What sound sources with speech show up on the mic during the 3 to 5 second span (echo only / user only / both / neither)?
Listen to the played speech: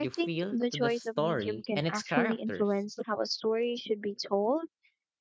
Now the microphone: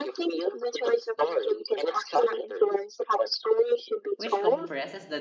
both